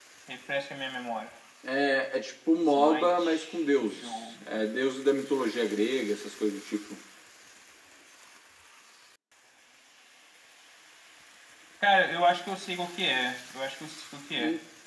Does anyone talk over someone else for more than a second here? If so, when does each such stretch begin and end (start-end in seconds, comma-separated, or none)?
2.6-4.5